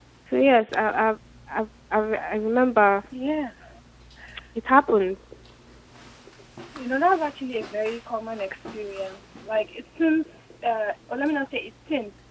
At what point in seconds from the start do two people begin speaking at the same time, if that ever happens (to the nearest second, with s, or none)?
none